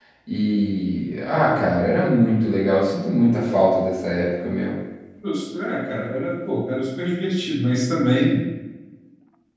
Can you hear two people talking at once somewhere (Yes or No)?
No